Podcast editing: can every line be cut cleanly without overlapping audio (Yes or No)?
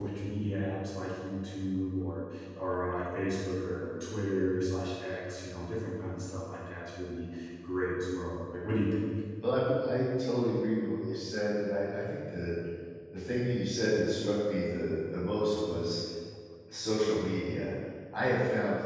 Yes